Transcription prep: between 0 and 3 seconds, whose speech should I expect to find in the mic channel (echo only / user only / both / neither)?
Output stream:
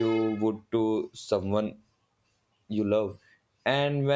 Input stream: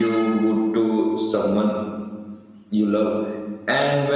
echo only